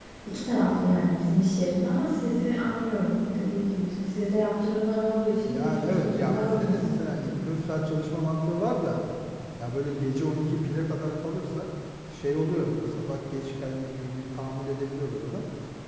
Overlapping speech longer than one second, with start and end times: 5.5-6.7

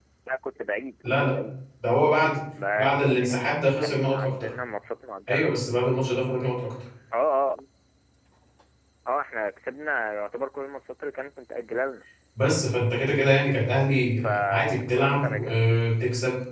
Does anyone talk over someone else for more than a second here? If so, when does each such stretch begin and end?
2.8-4.5, 14.2-15.6

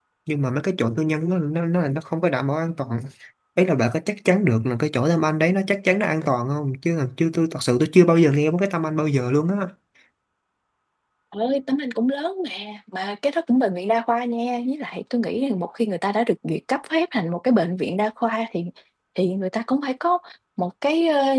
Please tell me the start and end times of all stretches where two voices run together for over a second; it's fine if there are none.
none

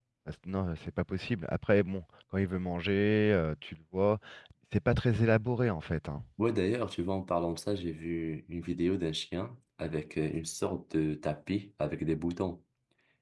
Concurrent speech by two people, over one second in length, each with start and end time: none

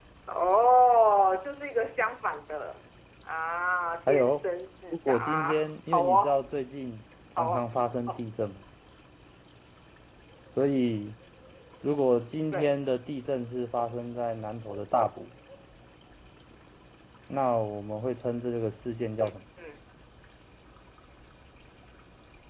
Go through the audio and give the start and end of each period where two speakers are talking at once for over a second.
4.9-6.4

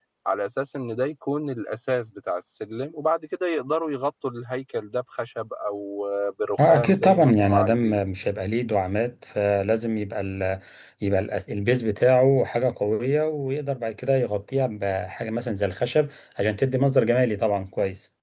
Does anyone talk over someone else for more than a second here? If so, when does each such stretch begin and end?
6.6-8.0

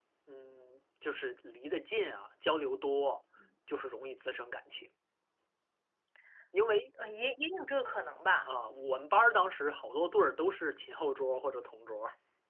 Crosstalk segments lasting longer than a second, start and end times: none

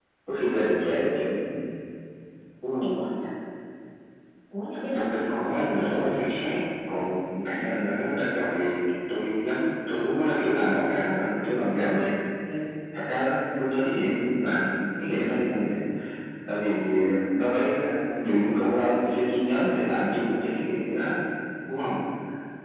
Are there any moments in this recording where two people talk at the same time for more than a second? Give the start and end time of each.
4.9-6.3

